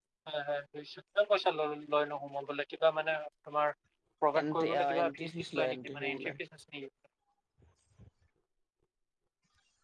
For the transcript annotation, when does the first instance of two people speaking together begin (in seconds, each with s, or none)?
4.4 s